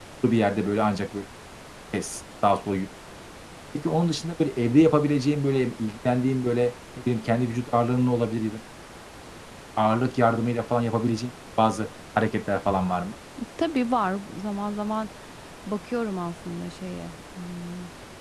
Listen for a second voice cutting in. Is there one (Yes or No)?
No